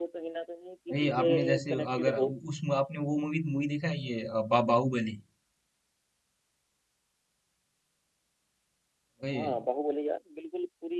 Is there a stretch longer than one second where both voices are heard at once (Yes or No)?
Yes